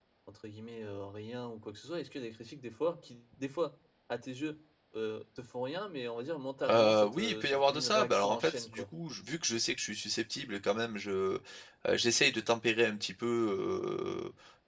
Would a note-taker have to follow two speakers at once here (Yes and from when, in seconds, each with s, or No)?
Yes, from 6.7 s